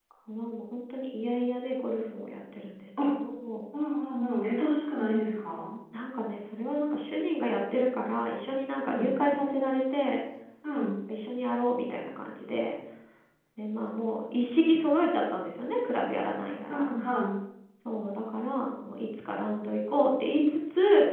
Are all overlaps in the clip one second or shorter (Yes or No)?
Yes